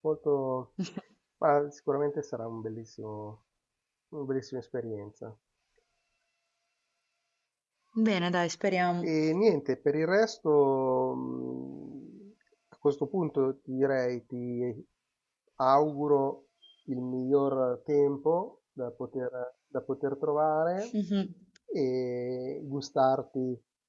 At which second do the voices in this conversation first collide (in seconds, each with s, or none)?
none